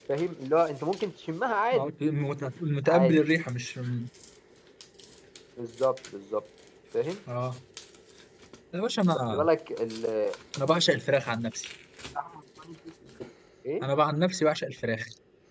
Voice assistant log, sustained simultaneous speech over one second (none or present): none